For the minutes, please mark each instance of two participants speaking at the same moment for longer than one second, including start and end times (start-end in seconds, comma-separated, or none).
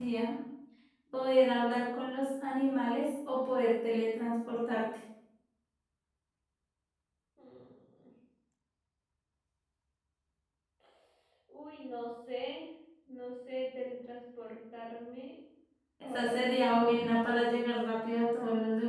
16.0-17.6